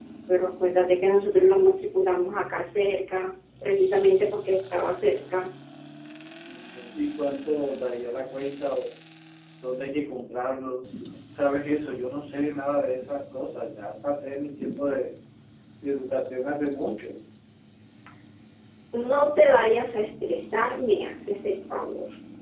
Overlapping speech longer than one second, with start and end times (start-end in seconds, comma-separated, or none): none